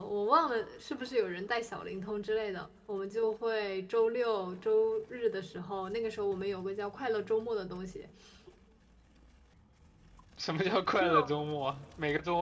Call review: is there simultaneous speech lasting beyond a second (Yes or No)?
No